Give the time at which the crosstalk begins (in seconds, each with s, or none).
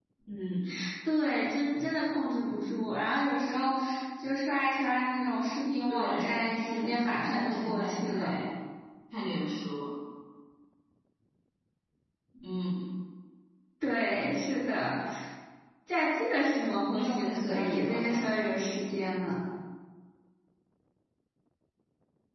5.9 s